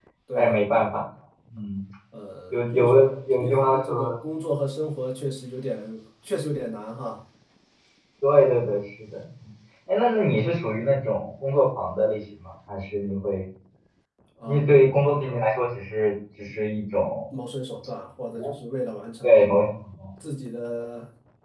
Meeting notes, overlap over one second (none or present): present